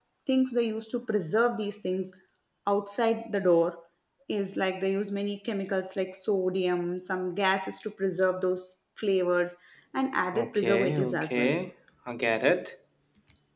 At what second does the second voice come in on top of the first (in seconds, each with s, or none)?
10.3 s